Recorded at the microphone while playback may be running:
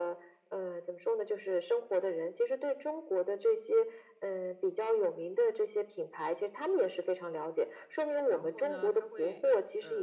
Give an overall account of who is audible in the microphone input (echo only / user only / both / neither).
both